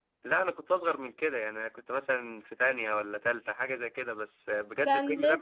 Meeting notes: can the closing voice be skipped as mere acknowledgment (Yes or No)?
No